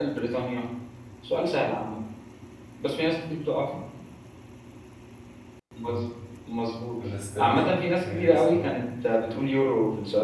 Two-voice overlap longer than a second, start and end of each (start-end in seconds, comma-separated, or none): 7.4-8.7